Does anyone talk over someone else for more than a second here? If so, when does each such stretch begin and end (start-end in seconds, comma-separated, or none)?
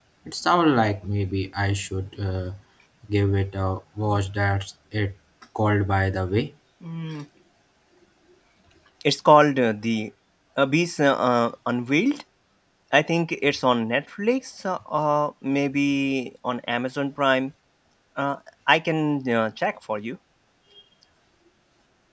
none